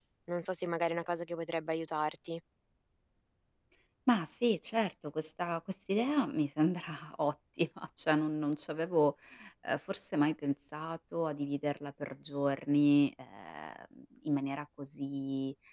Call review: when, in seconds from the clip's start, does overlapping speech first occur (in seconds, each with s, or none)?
none